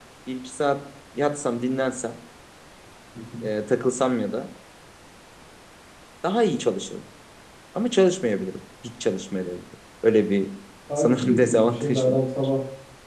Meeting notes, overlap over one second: present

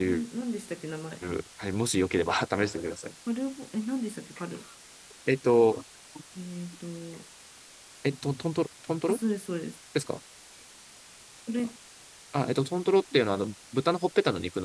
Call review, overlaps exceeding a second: none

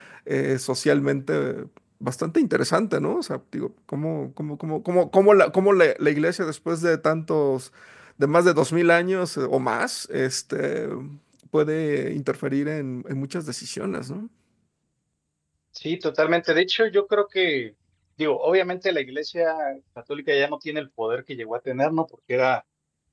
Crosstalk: none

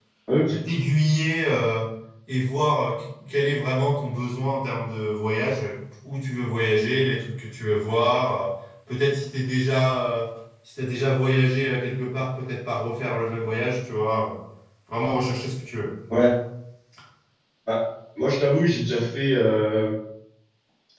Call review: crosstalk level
none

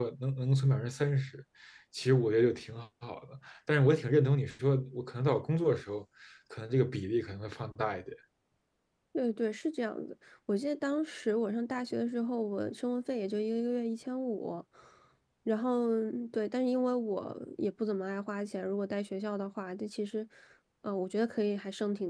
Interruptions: none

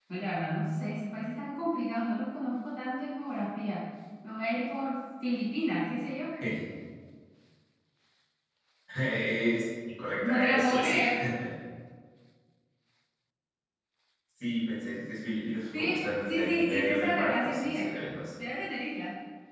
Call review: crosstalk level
present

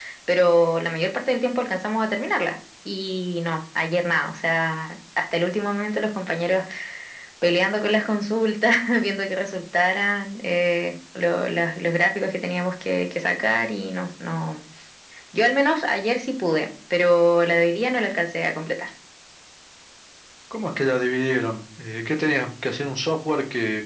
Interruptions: none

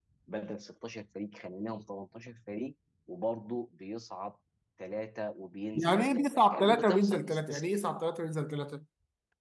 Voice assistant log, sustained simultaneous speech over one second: present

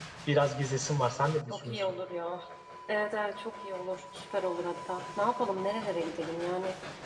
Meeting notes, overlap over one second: none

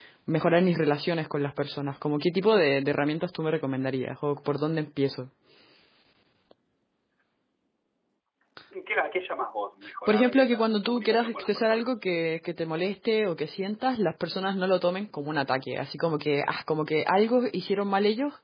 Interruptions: present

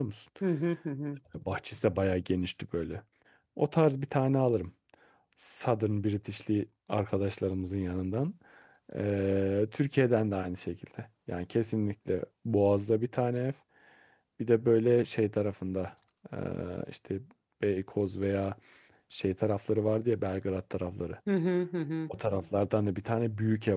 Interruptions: none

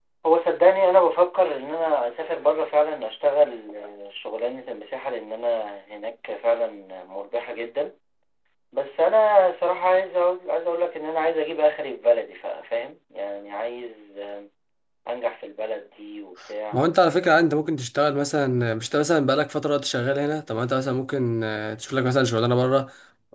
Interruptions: none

